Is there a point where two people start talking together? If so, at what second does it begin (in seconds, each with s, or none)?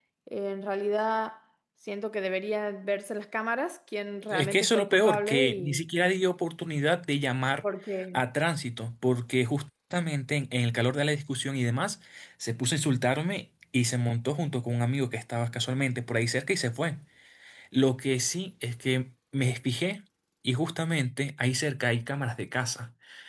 4.3 s